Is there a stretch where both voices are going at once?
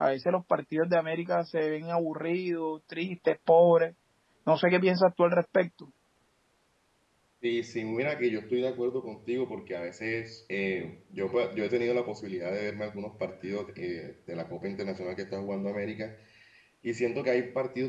No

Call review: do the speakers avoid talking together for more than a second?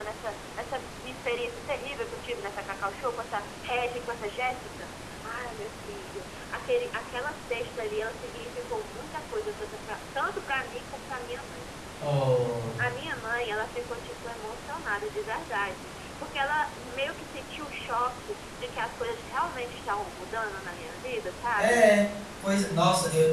Yes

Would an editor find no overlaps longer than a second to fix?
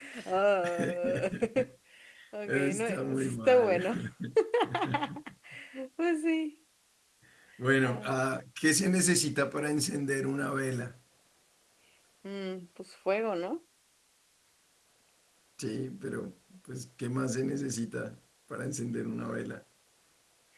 No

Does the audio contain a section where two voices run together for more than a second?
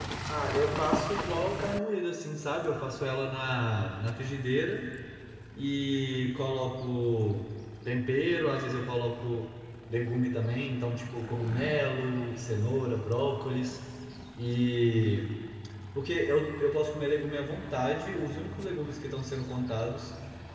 No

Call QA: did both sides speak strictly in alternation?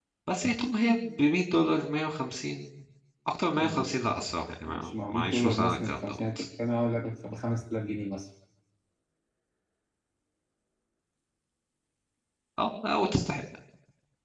No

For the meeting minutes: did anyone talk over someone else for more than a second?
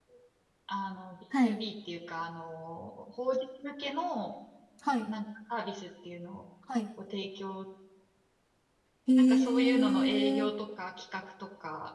Yes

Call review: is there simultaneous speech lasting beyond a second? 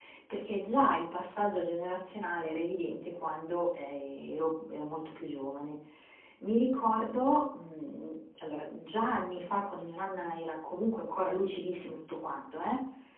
No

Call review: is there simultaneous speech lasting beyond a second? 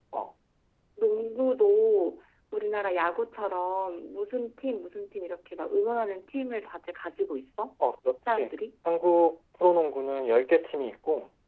No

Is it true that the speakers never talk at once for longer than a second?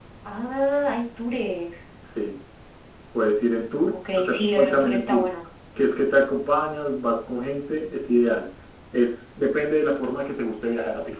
No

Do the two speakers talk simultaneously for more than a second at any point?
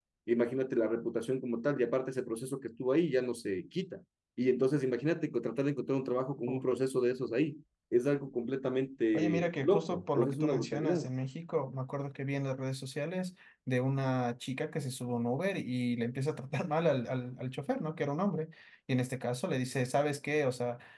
Yes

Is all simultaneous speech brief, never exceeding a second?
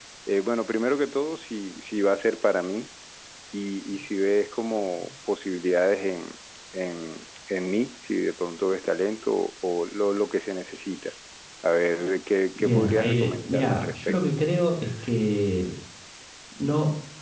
No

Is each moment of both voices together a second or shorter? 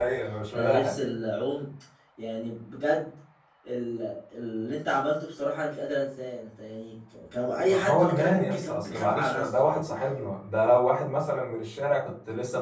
No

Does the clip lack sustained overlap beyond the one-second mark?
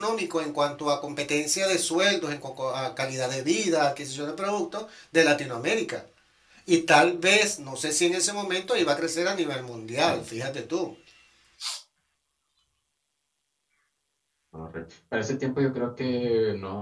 Yes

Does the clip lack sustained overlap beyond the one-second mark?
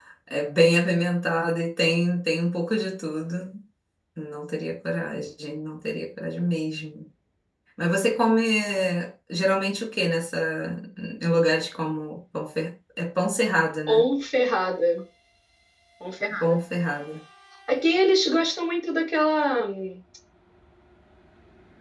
Yes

